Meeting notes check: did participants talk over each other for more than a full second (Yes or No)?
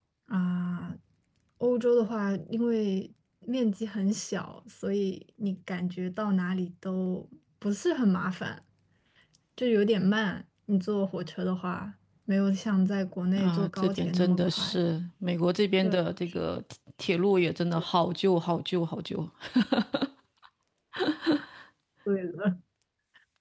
Yes